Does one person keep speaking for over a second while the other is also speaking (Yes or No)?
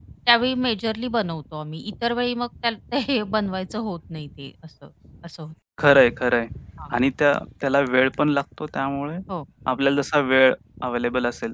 No